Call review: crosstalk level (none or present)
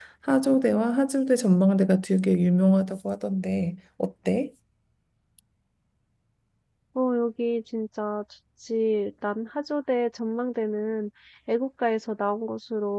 none